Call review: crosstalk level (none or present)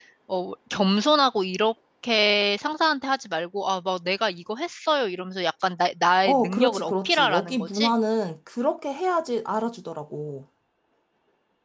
present